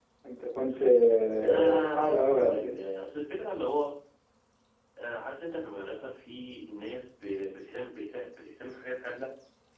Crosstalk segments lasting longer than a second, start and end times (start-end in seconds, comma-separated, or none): 1.4-2.7